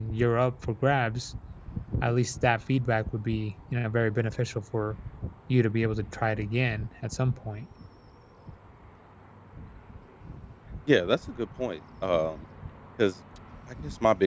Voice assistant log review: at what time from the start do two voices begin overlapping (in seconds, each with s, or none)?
none